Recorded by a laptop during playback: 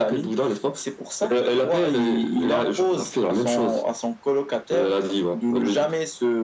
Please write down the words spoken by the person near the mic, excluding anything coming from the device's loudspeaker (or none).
none